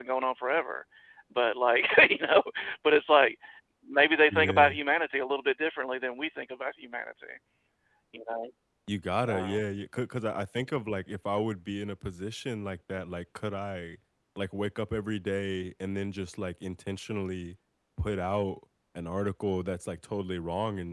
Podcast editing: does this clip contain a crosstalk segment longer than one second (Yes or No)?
No